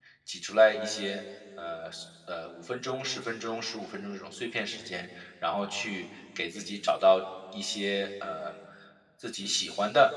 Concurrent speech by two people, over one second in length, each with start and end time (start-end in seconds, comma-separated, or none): none